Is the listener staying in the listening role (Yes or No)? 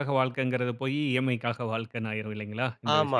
No